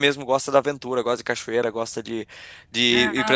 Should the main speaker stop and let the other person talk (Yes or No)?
Yes